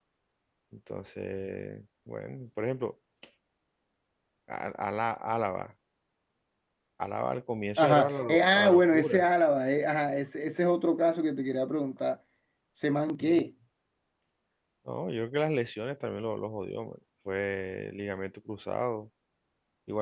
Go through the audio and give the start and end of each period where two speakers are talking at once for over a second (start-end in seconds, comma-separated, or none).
7.8-9.3